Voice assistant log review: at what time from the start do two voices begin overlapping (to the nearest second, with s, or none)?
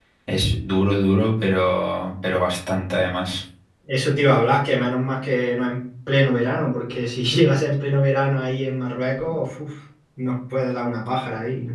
none